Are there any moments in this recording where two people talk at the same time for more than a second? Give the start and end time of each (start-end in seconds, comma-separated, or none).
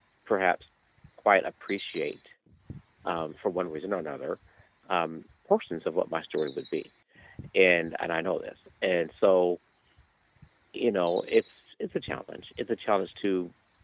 none